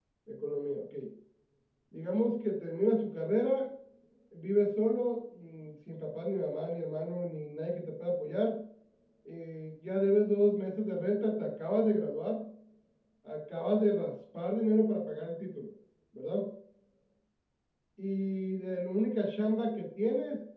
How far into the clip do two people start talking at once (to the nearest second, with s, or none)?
none